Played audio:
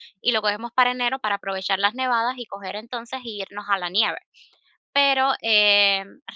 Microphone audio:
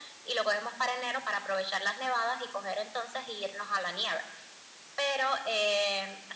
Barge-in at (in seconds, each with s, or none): none